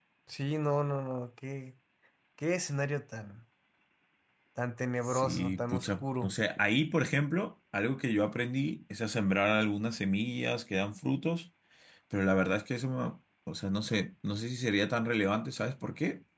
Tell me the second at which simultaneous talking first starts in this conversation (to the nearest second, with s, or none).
5 s